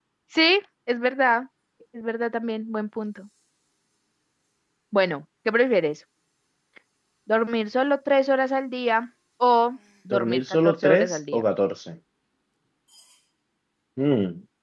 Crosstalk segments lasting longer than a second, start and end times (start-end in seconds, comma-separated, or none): 10.1-11.4